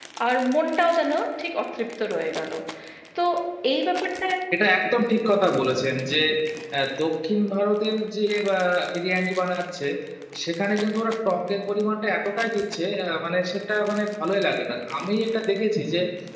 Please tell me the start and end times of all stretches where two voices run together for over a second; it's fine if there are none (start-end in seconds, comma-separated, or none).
none